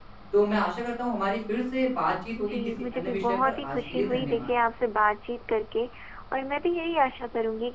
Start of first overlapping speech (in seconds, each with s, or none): 2.4 s